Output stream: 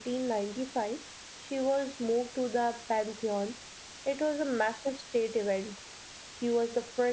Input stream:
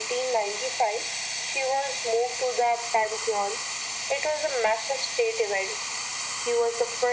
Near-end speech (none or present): none